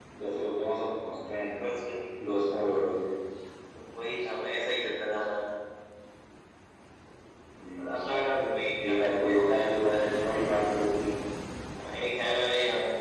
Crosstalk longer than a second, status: none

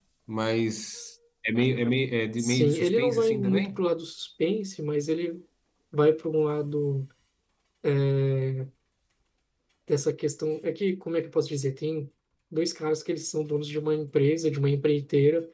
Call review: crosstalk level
present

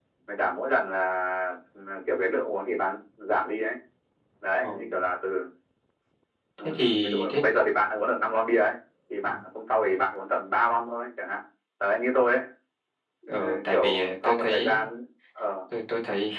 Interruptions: present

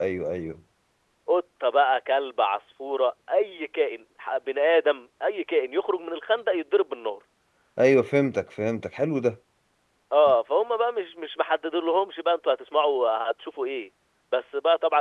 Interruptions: none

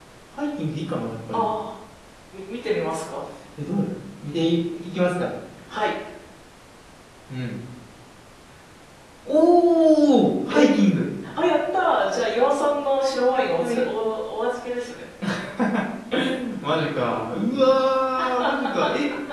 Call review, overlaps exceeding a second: none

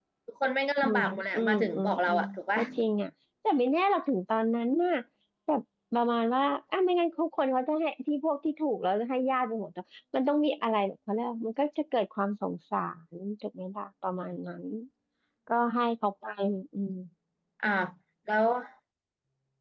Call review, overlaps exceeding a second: present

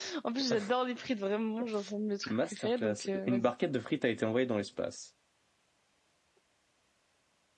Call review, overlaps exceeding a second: present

